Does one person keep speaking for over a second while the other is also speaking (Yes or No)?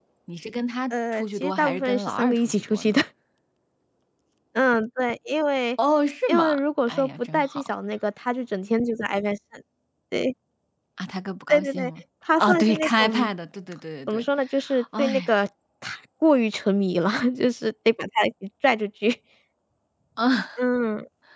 Yes